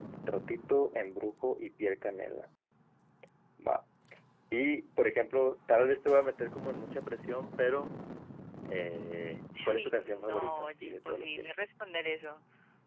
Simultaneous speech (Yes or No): Yes